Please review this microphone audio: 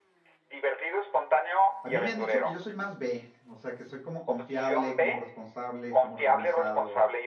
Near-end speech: present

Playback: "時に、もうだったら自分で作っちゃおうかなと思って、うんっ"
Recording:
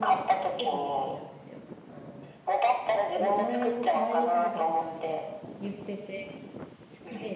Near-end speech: present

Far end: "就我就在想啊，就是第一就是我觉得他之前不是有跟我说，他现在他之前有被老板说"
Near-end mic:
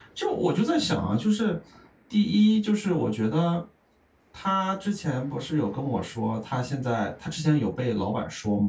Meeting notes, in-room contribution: none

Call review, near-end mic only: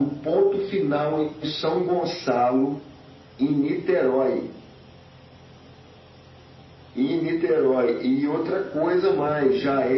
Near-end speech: none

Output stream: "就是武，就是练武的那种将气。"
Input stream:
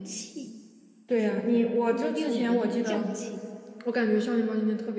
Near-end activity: present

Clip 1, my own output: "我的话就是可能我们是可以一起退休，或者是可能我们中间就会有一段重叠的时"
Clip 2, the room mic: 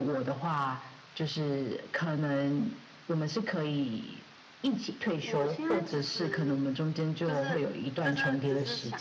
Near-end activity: present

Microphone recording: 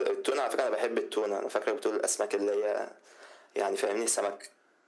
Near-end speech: none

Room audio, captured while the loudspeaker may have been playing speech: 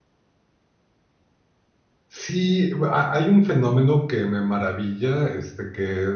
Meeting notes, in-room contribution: present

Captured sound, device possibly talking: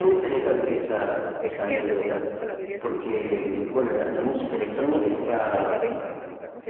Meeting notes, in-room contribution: present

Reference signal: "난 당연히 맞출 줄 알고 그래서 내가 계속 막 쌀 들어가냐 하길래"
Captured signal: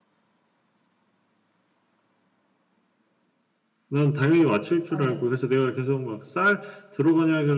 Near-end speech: present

